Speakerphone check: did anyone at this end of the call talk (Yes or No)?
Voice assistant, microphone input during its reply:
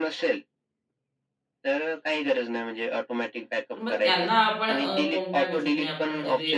Yes